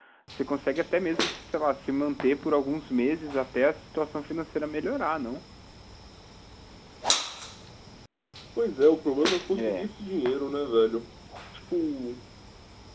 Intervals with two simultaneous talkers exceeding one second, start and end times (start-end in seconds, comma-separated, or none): none